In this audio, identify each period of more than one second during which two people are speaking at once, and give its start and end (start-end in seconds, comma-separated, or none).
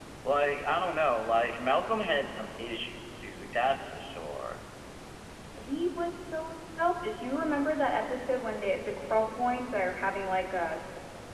none